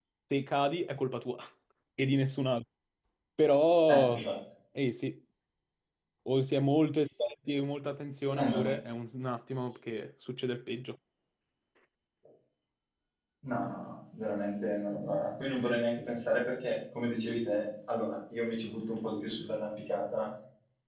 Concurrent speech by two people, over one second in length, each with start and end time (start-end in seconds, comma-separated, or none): none